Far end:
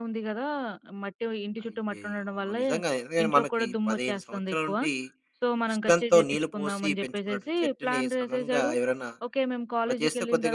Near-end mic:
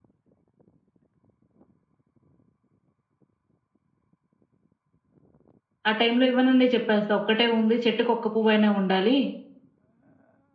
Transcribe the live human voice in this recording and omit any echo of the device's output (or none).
ఆ టైంలో ఇవ్వననే చెప్పేస్తా. ఒక్కటే ఉంది చెట్టుకి ఒక్క పువ్వైనా ఉండాలి.